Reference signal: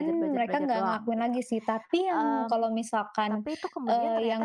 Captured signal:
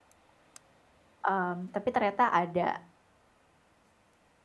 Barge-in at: 1.2 s

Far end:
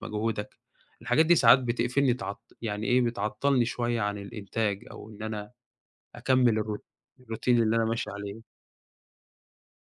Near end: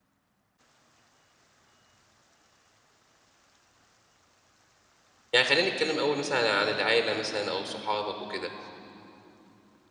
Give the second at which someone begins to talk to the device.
5.3 s

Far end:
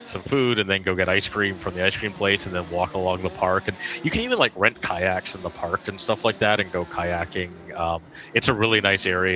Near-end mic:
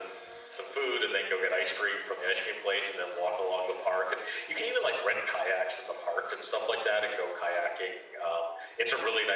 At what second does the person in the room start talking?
none

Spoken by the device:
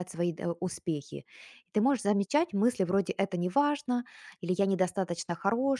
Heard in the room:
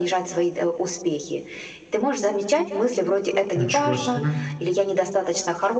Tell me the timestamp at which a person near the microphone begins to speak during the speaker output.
3.5 s

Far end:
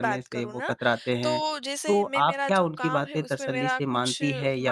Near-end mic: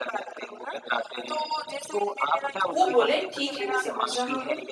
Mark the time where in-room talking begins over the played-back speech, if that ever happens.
2.7 s

